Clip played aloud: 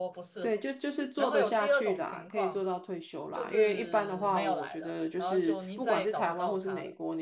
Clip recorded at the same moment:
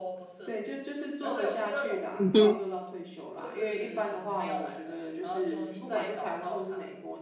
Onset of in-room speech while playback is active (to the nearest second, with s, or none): 2 s